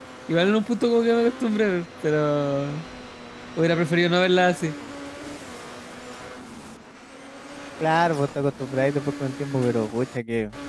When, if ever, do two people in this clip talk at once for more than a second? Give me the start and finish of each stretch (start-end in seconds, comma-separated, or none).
none